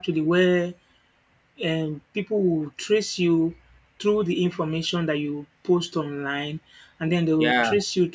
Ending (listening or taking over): listening